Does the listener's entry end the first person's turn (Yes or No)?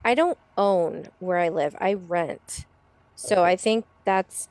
No